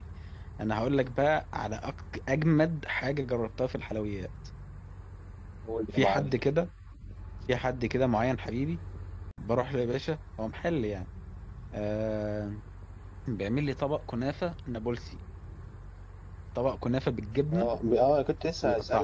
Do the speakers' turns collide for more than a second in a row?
No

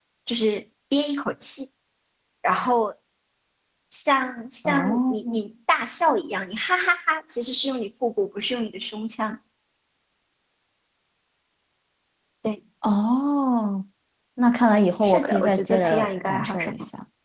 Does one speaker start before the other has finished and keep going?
Yes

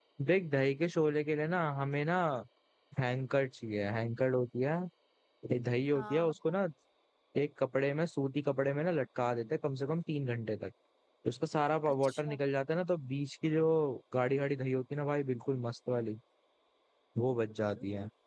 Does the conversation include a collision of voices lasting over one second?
No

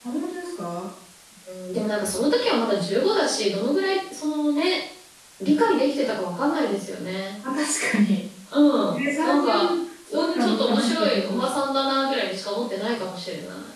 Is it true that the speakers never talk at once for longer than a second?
No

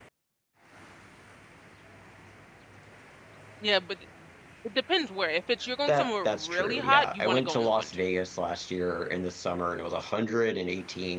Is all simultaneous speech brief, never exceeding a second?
No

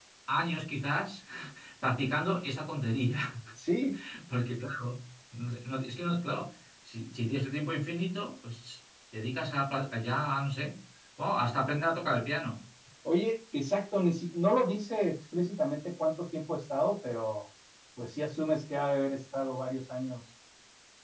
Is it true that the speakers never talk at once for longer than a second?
Yes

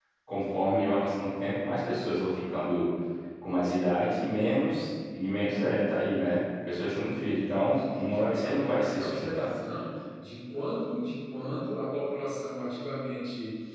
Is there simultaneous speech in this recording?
Yes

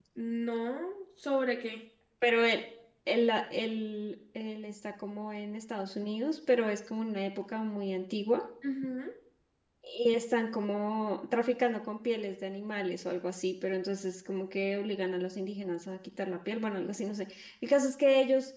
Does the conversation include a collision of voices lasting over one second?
No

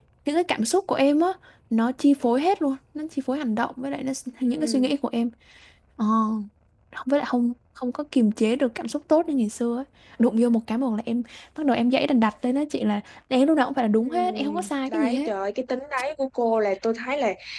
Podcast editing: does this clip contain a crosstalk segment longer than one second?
Yes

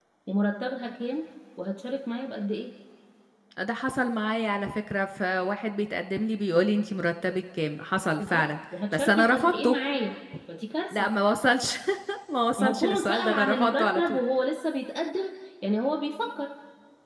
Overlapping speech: Yes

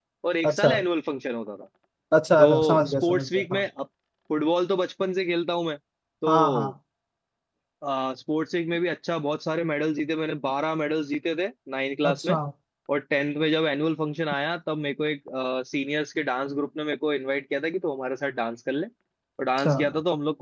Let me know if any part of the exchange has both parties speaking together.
Yes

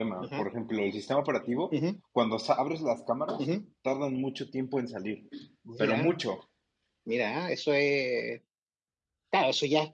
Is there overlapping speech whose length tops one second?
No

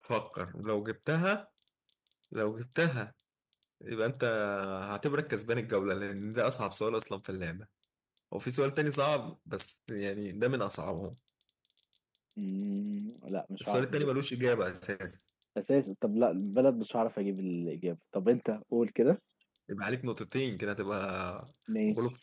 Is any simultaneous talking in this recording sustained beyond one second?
No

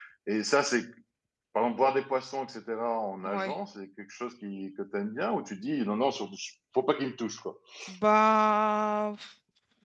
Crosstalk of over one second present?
No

